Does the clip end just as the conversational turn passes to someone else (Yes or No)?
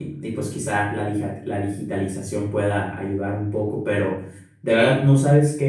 No